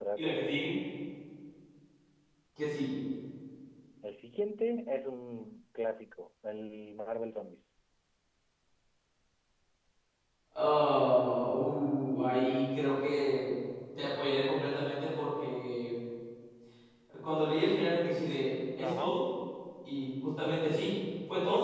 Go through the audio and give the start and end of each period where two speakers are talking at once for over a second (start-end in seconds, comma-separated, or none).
none